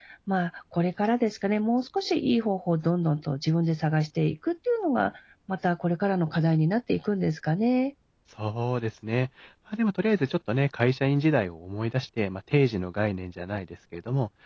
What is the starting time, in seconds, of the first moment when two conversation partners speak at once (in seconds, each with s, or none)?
none